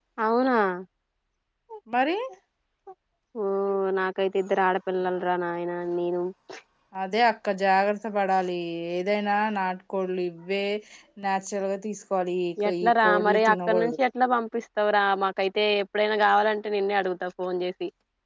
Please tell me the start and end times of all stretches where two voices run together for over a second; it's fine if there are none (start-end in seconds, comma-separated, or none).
12.7-14.0